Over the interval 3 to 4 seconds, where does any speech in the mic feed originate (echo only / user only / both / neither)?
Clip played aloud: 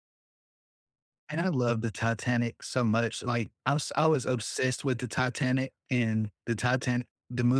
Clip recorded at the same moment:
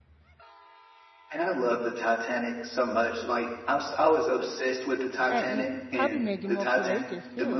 echo only